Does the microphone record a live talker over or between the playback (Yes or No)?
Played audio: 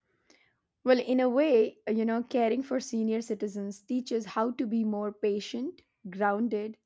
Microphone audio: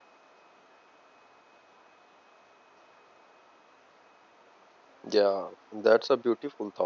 Yes